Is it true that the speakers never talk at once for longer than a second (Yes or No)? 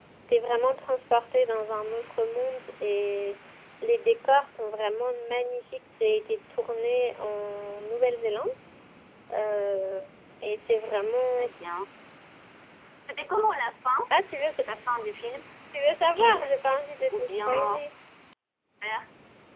No